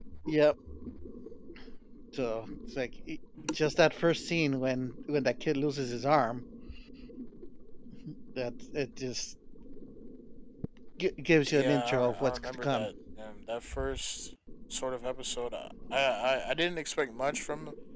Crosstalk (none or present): present